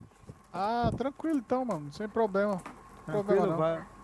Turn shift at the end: Yes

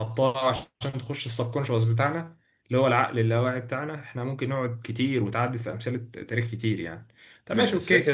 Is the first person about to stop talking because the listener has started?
No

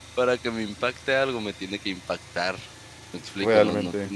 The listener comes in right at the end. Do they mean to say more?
No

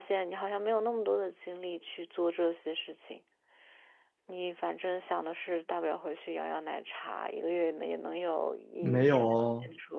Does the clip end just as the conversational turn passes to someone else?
Yes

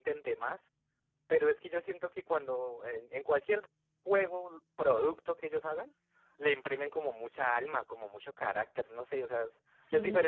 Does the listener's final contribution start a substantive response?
Yes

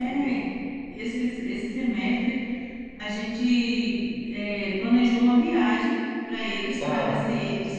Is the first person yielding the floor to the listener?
No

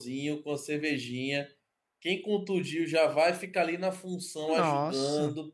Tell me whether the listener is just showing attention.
Yes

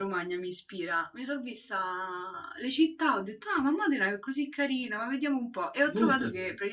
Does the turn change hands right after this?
No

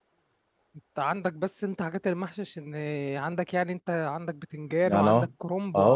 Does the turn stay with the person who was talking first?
No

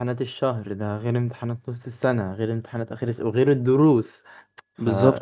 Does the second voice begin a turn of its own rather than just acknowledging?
No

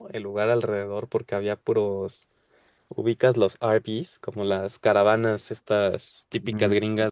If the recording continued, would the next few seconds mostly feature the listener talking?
Yes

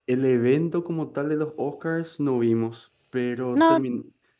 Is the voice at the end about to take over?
No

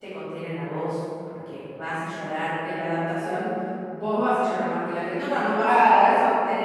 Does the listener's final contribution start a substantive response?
No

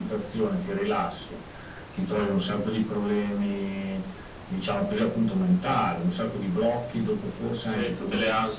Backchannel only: No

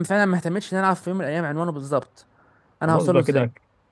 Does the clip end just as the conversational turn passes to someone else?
Yes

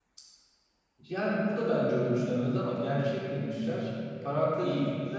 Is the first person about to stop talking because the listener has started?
No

